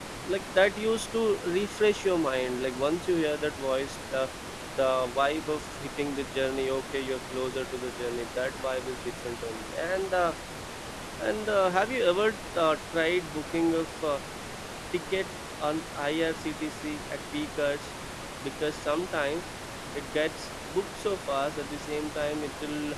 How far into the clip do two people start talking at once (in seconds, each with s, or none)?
none